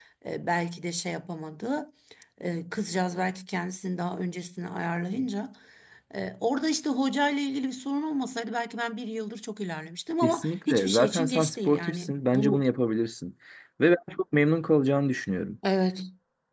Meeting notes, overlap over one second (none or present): present